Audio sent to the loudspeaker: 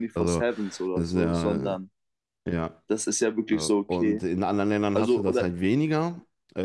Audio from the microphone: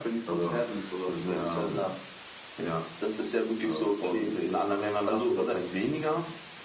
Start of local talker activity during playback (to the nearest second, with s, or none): none